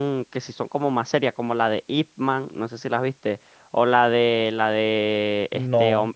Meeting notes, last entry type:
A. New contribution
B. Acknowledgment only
B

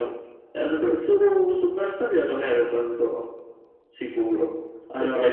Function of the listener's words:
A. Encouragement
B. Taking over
A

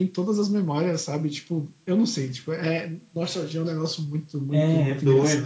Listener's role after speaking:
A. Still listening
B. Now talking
B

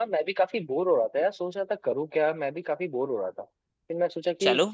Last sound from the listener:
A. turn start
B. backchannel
B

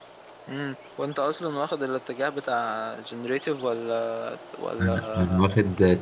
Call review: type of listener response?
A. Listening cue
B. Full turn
B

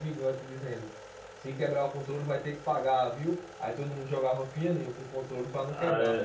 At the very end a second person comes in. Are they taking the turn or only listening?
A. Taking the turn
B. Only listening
B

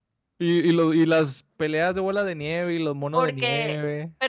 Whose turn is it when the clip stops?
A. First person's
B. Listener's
B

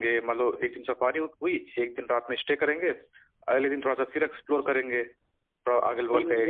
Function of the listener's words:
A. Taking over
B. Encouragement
A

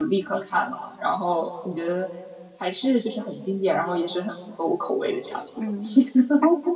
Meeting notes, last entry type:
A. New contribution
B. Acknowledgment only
A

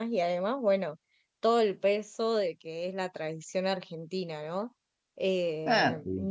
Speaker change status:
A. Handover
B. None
B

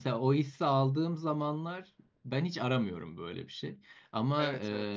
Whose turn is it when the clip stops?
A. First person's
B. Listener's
A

